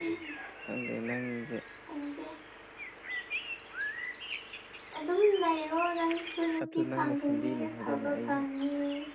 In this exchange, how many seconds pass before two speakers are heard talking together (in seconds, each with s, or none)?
6.6 s